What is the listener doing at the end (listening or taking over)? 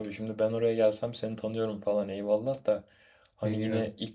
listening